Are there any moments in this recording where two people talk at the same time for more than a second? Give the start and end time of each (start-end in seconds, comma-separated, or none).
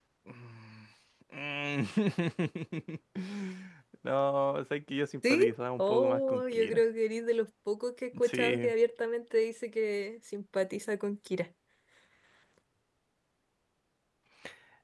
5.3-6.8